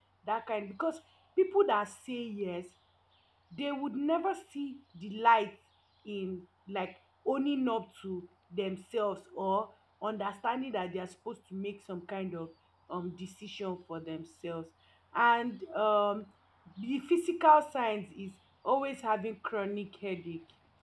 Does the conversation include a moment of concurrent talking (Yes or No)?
No